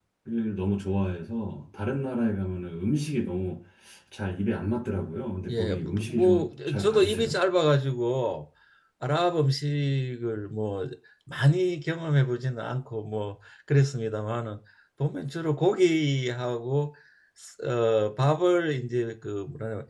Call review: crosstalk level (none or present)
present